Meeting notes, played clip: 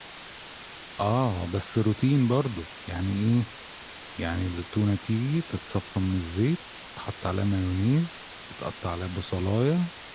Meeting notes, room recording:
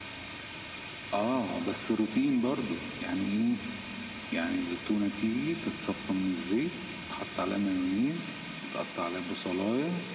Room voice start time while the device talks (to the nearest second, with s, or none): none